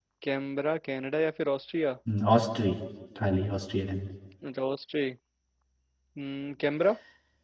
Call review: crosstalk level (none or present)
none